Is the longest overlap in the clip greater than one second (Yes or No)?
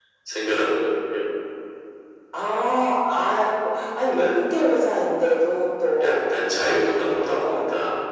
Yes